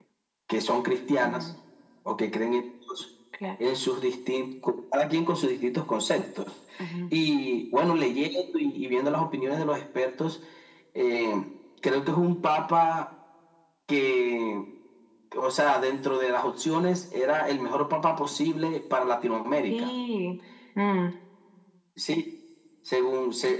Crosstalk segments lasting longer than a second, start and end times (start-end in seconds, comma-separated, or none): none